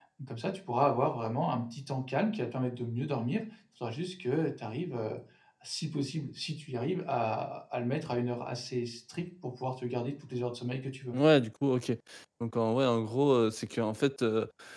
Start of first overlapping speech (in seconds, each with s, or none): none